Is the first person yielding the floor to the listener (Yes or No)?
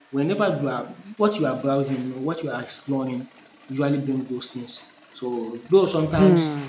Yes